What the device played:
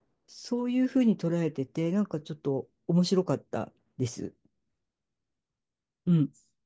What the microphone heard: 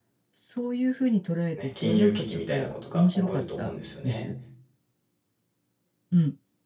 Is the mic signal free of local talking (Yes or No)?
No